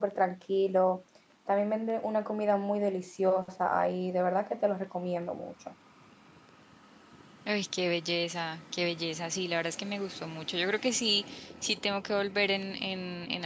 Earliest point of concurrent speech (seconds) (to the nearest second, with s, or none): none